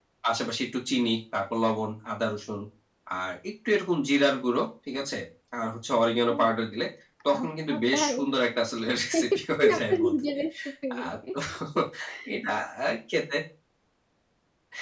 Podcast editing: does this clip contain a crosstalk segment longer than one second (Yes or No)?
Yes